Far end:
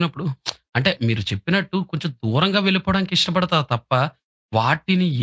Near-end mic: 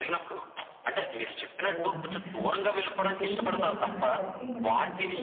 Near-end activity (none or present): present